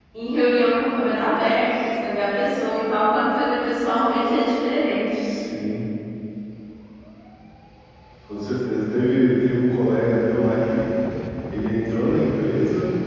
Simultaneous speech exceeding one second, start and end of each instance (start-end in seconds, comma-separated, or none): none